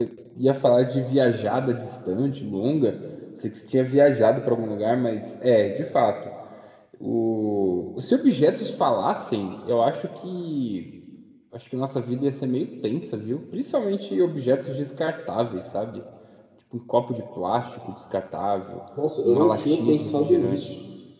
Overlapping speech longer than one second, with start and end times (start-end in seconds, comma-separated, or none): 19.2-20.6